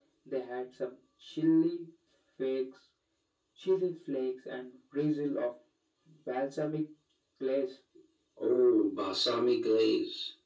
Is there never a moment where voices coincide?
Yes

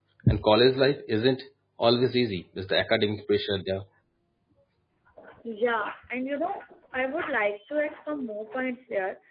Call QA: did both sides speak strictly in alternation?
Yes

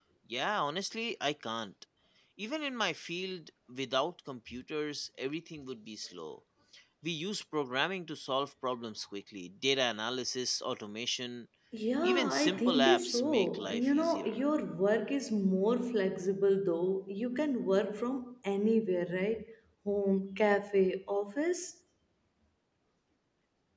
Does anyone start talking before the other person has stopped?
Yes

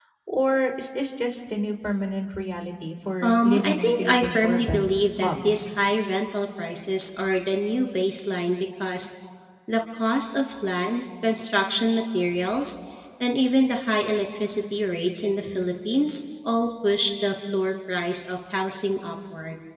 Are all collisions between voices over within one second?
No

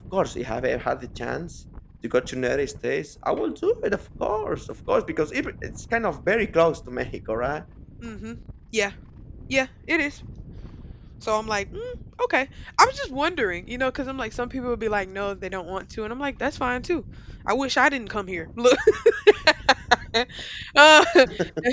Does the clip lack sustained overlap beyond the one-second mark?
Yes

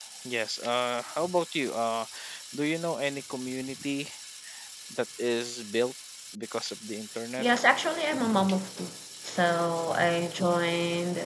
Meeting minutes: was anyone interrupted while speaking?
No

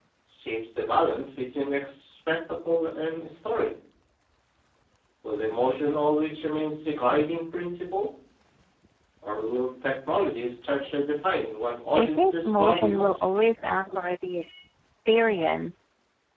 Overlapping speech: Yes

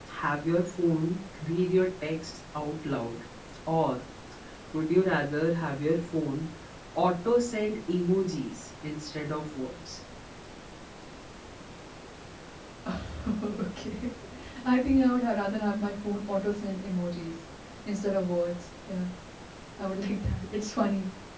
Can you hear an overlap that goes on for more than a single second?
No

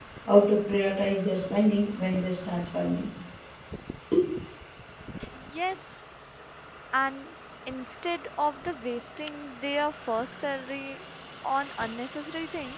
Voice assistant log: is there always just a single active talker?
Yes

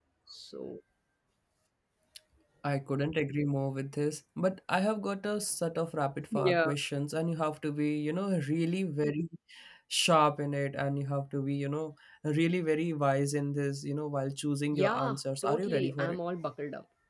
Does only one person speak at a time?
No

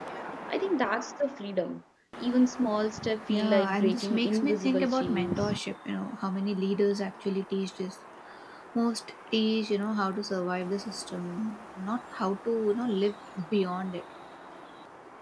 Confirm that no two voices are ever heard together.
No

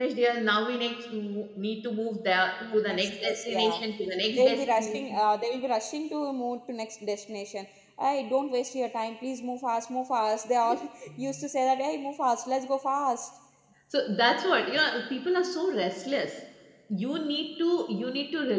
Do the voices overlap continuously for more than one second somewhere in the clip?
Yes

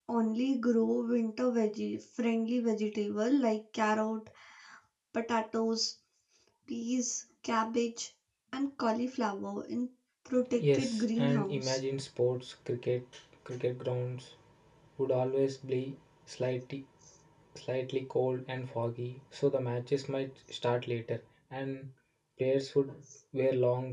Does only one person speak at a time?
No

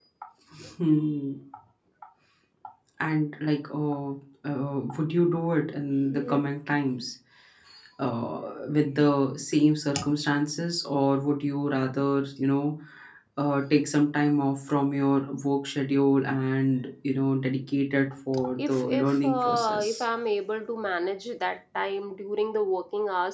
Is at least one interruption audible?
Yes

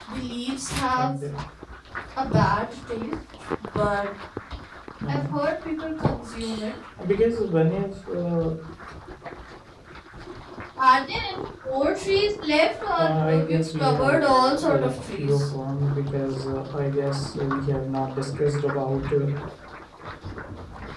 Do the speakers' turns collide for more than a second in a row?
Yes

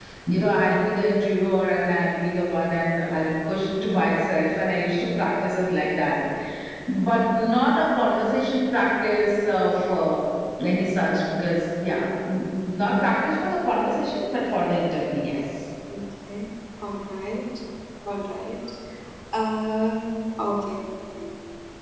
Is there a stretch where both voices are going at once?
No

